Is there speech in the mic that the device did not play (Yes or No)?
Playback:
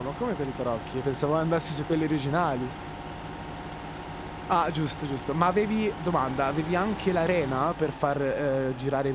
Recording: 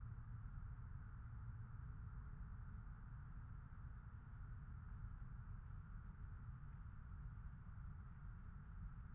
No